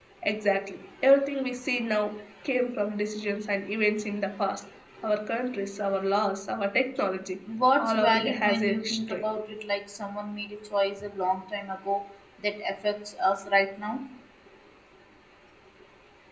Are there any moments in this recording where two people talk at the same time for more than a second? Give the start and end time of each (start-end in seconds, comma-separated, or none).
7.8-9.2